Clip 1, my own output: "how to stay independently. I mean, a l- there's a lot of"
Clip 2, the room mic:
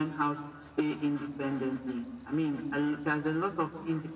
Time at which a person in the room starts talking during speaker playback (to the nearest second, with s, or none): none